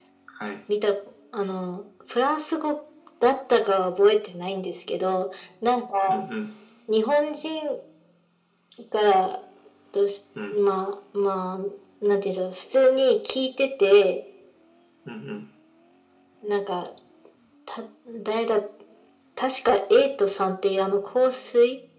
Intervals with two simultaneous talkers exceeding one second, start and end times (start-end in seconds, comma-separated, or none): none